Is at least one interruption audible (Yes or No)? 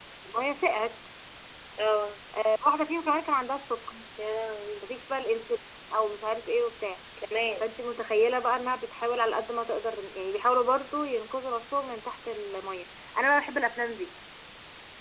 No